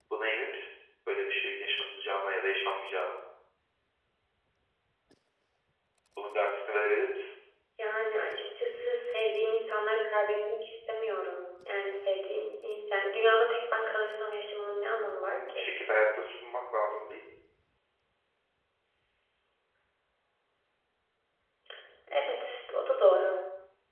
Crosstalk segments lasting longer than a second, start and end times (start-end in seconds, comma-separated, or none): none